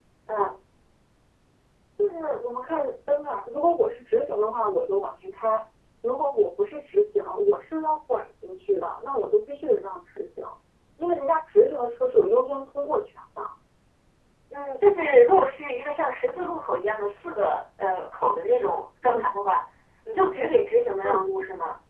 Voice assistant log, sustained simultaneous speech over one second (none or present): none